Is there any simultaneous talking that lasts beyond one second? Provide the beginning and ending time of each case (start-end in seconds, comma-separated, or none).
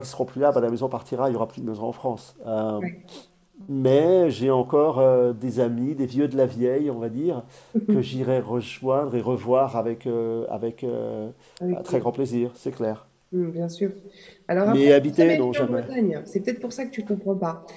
14.6-15.8